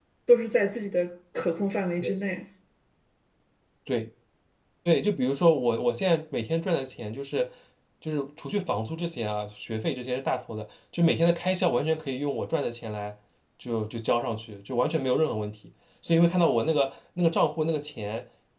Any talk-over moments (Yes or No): No